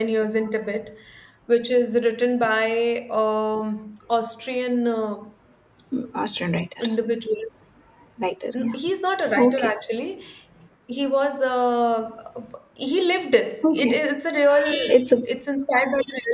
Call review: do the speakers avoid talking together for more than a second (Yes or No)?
Yes